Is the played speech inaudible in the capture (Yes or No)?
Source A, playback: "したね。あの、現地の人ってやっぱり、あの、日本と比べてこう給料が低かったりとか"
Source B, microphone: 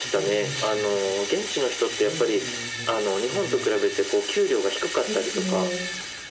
No